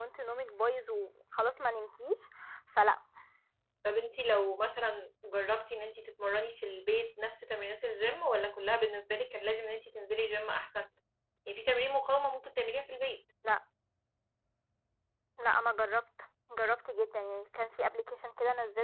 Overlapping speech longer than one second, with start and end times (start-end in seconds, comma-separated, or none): none